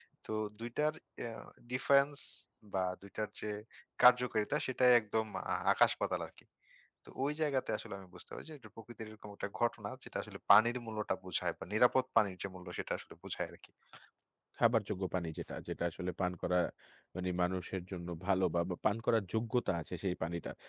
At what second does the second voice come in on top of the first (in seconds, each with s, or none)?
none